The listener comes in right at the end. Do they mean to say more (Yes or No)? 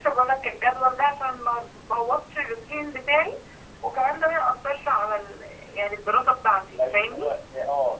Yes